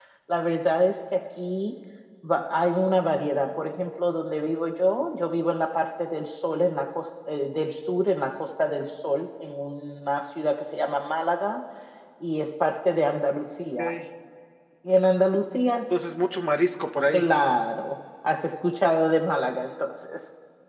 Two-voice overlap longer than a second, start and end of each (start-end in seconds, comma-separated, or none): none